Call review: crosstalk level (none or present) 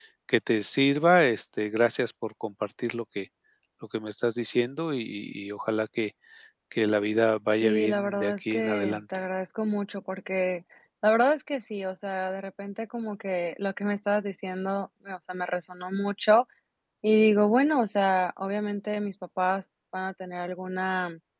present